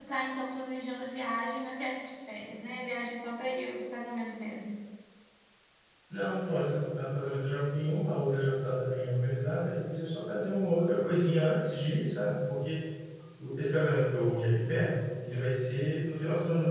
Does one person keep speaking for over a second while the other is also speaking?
No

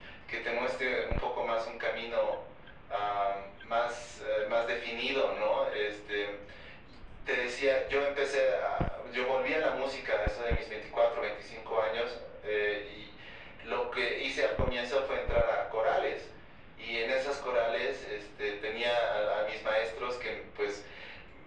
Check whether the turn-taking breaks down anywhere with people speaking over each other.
No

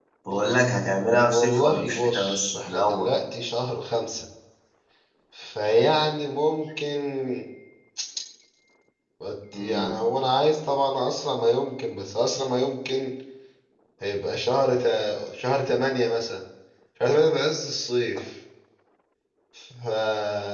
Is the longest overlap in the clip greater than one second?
Yes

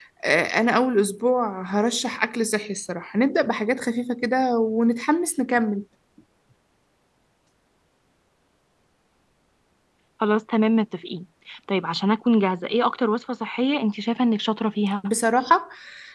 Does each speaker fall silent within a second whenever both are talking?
Yes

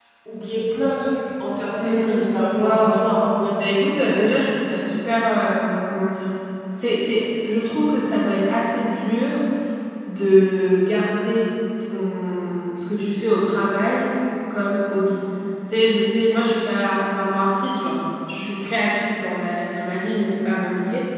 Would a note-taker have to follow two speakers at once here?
Yes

